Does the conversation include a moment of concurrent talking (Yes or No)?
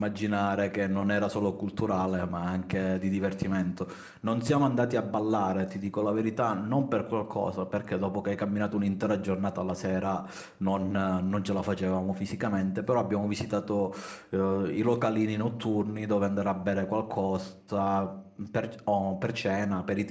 No